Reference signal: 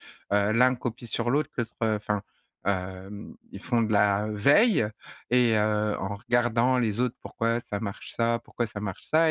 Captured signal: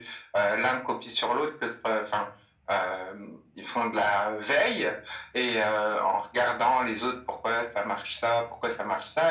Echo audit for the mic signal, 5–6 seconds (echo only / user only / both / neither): echo only